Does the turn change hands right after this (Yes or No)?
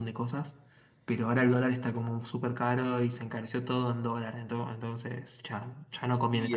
Yes